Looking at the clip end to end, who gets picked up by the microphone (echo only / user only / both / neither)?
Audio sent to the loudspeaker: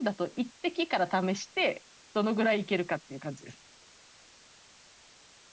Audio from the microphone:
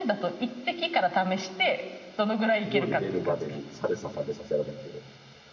both